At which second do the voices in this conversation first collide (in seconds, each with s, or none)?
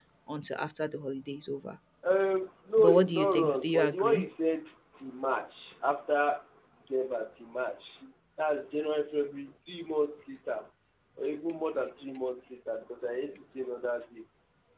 2.8 s